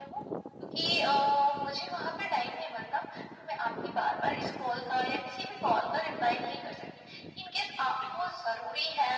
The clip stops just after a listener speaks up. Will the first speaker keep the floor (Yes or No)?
Yes